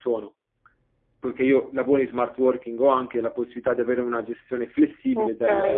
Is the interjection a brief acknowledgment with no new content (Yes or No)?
No